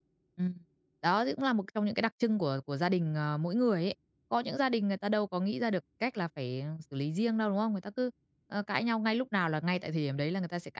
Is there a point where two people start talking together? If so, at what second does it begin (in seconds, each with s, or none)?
none